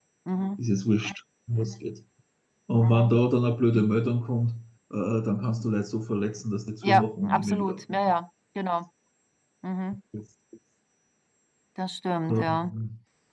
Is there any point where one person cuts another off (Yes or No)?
Yes